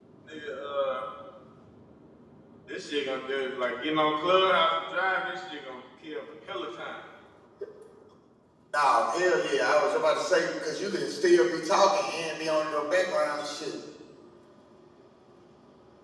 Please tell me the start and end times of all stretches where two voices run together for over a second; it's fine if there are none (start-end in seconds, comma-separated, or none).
none